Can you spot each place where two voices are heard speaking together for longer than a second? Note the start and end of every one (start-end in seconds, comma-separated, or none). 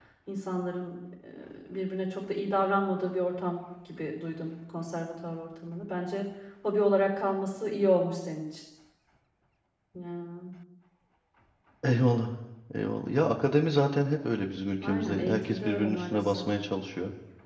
14.8-16.5